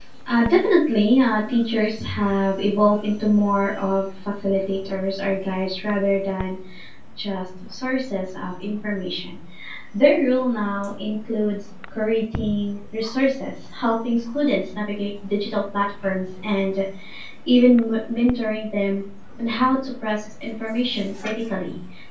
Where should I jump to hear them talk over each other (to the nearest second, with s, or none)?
none